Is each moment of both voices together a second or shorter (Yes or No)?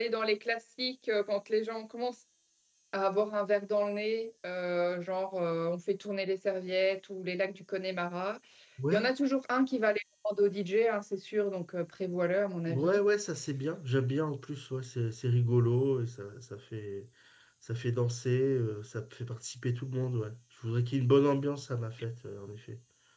Yes